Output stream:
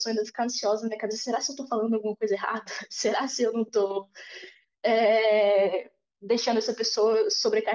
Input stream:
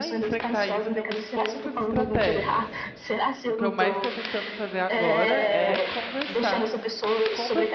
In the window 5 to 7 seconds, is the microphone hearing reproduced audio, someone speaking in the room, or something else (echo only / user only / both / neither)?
both